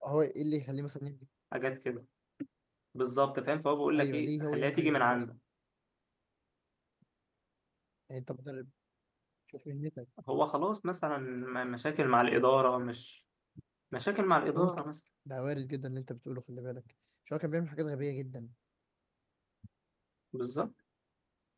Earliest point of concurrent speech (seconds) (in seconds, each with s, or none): 3.9 s